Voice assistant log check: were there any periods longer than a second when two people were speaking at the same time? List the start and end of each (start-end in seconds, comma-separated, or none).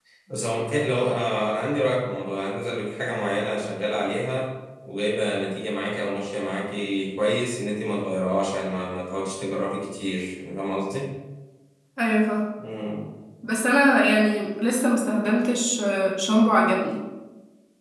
none